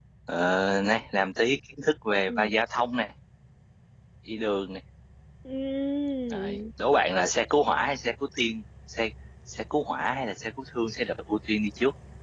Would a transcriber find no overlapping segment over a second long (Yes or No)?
Yes